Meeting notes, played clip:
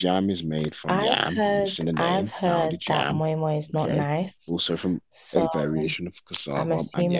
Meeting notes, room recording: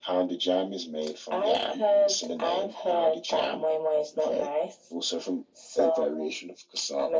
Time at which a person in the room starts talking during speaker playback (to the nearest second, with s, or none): none